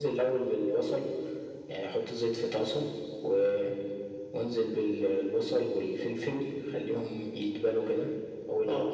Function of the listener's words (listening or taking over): listening